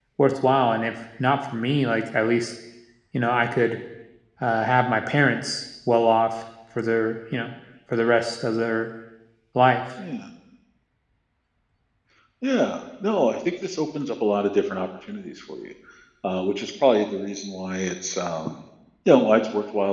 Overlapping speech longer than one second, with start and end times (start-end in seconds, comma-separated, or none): none